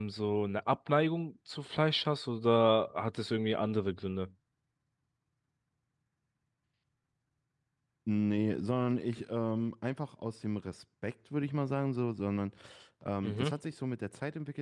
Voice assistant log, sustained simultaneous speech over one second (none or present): none